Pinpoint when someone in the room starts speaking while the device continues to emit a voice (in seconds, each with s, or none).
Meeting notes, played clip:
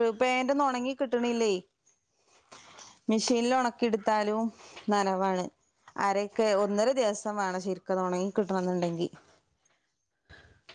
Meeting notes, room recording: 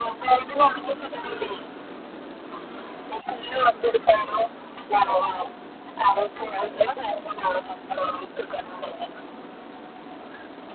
none